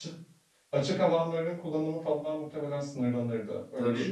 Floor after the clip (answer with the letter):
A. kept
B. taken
B